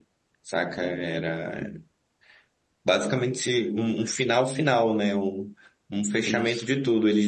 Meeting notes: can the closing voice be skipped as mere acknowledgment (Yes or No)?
Yes